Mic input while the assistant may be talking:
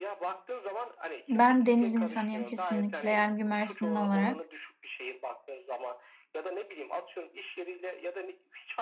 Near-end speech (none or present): present